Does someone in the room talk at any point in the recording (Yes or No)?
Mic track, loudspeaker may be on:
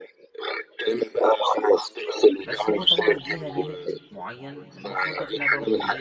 Yes